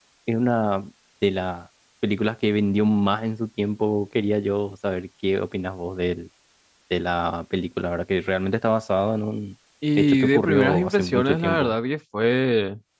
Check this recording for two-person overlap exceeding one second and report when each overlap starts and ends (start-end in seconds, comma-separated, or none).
10.0-11.8